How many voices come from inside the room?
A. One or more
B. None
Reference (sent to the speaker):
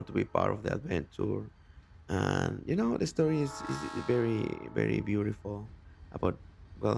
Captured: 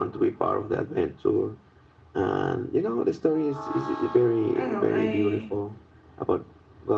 A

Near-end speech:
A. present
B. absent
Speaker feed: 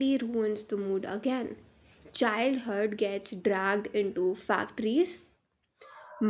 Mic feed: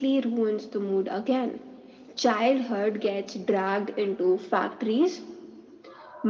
B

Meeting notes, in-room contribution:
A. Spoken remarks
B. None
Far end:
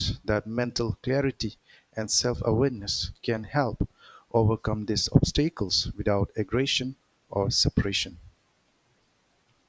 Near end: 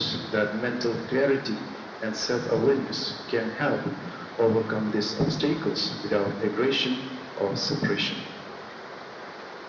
B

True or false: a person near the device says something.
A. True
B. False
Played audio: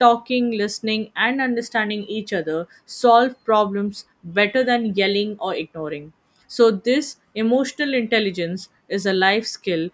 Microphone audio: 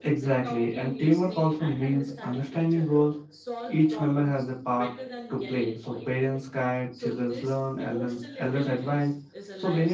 A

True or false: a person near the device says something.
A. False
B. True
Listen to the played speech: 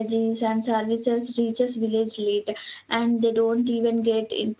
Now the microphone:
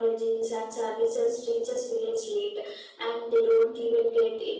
A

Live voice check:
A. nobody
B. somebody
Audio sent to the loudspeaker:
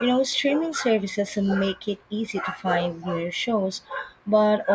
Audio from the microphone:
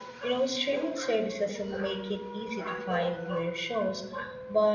A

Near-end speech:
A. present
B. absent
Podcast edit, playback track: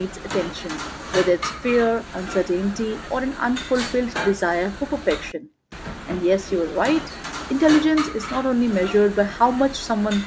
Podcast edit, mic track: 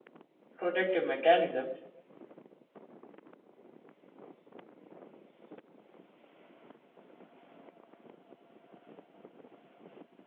A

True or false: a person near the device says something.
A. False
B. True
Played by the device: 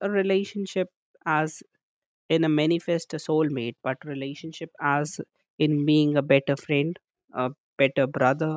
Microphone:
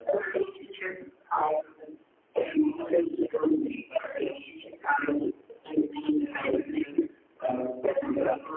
A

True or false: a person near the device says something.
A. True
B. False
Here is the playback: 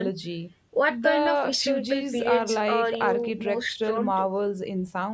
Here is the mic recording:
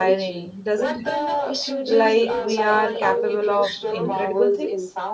A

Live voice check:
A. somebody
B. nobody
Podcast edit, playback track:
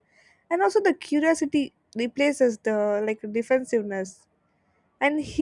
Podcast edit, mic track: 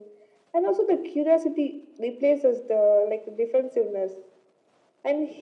B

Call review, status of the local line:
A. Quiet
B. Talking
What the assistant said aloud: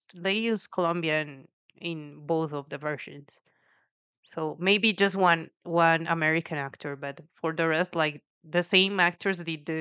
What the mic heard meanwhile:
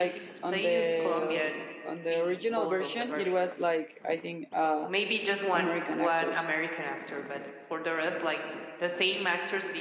B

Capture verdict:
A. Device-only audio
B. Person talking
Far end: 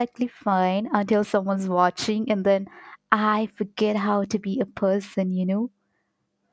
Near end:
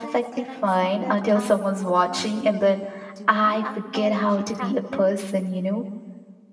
B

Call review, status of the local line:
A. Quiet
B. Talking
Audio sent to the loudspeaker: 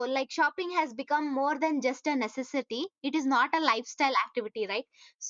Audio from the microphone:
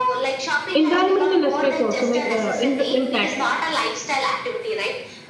B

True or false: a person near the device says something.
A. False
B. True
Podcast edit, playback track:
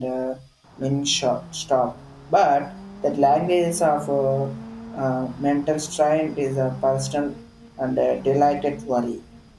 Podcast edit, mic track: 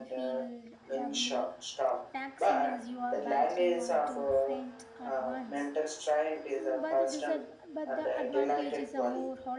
B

